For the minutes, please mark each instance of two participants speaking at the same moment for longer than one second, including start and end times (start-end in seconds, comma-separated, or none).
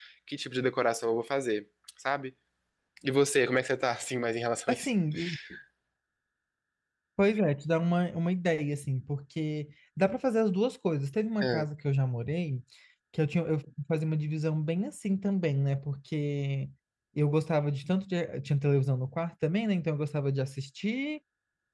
none